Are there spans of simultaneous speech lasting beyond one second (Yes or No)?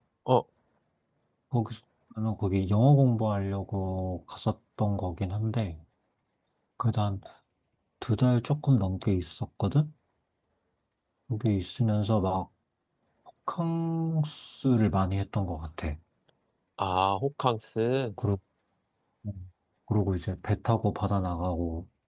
No